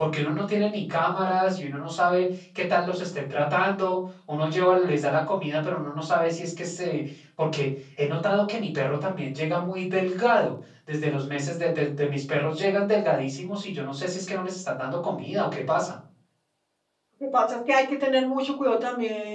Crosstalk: none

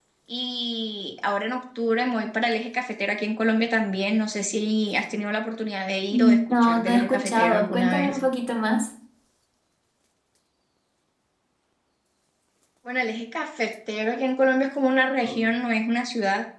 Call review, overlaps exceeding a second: present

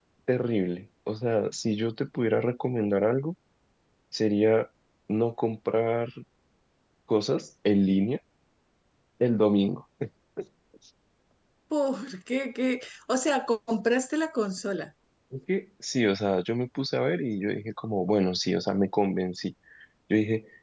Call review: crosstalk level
none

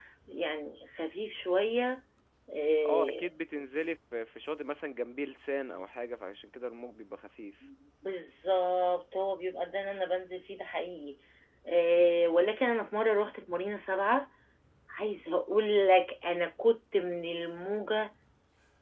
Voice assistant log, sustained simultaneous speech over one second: none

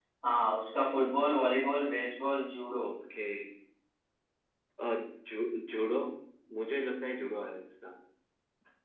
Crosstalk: none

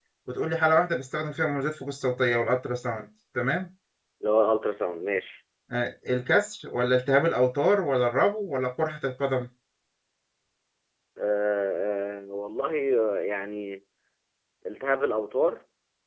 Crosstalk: none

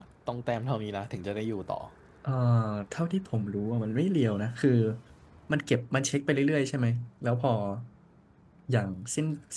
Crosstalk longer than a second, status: none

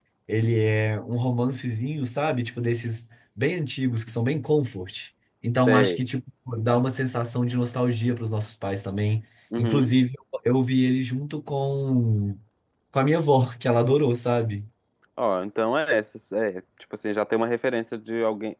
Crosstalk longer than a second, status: none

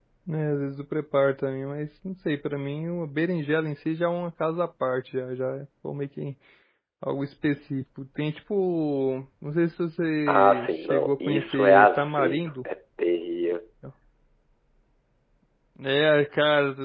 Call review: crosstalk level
present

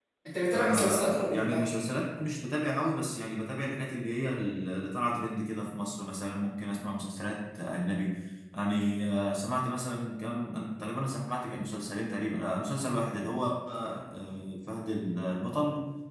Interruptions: present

